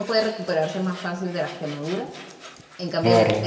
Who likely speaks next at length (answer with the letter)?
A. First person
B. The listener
A